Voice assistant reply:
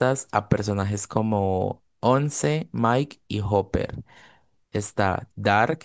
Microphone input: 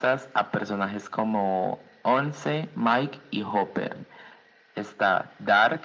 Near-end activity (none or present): none